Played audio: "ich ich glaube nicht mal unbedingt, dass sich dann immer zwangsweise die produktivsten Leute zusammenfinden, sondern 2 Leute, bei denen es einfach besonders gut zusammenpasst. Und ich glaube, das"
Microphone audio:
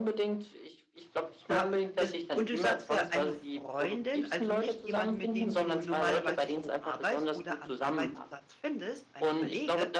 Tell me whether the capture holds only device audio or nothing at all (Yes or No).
No